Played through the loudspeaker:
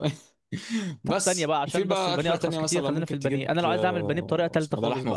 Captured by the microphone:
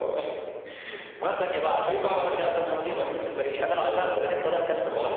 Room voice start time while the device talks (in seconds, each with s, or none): none